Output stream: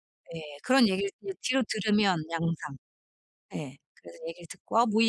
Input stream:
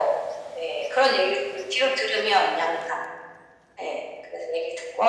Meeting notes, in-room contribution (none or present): none